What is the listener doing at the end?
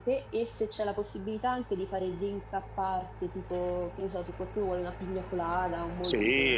taking over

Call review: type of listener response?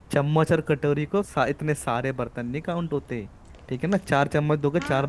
taking over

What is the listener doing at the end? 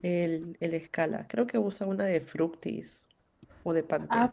taking over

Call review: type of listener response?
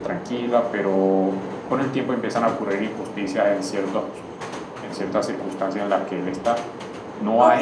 taking over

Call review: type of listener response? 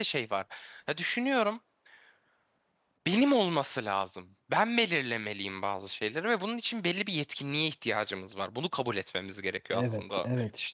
taking over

